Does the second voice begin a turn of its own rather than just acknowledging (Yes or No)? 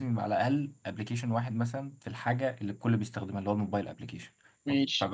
No